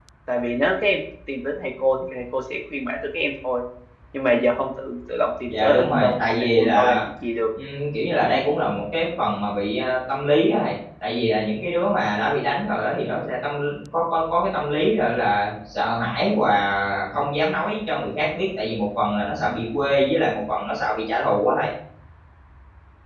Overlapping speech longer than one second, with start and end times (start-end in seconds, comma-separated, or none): 5.6-7.0